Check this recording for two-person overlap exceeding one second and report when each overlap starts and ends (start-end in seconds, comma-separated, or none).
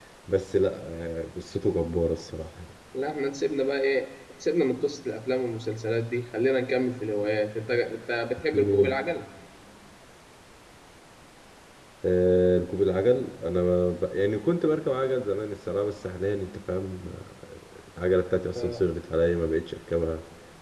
none